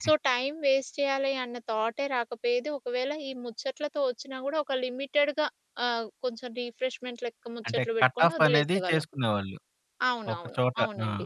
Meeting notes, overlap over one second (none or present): present